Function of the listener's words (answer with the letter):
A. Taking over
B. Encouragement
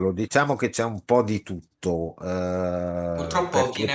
A